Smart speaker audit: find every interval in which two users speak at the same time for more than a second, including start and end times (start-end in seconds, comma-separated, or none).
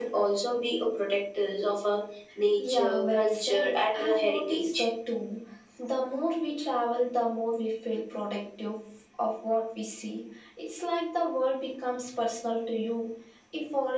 2.6-4.9